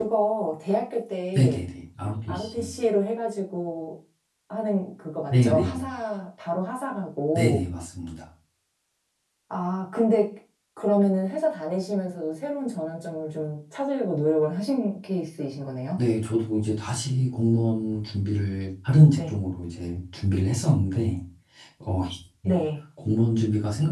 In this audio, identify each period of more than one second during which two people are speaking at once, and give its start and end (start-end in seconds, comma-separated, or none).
none